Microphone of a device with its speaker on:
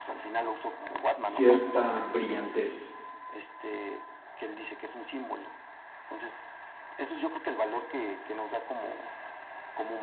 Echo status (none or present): present